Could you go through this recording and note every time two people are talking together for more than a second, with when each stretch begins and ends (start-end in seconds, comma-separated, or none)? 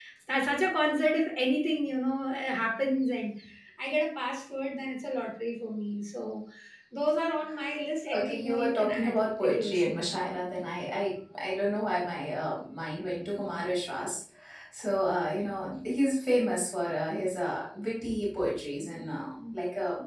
8.2-9.8